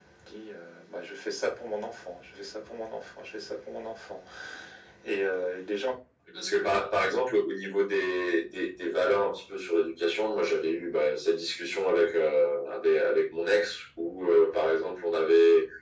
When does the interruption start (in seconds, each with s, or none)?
none